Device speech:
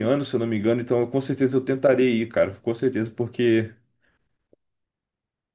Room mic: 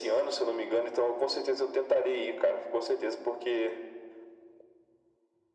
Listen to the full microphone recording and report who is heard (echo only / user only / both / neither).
echo only